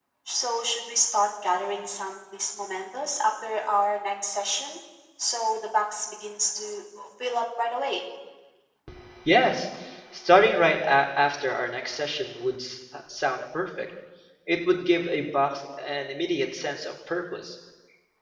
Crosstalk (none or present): none